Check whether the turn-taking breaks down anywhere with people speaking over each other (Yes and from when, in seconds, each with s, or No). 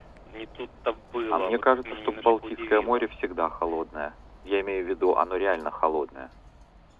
Yes, from 1.3 s